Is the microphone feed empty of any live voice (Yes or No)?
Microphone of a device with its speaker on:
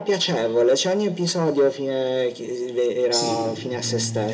No